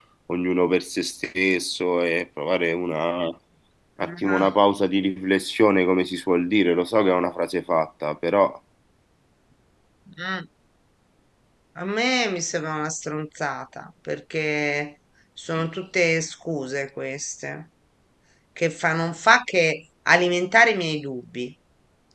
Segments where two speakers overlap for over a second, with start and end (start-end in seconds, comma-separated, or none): none